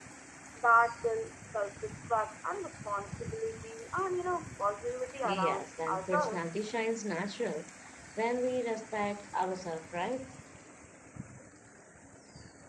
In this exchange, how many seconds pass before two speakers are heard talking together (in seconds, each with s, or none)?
5.2 s